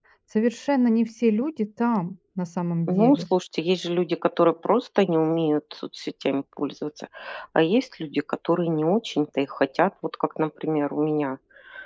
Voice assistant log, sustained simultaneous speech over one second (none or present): none